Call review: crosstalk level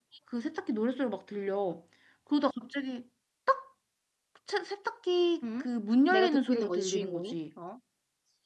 present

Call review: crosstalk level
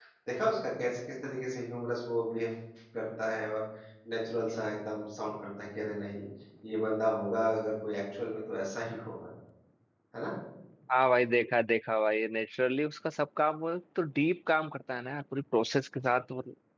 none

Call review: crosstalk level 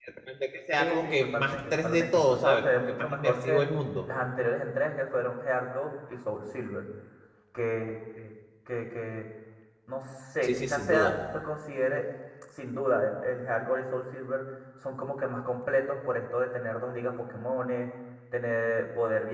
present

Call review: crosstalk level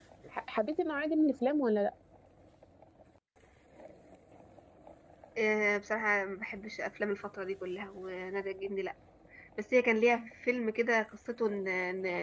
none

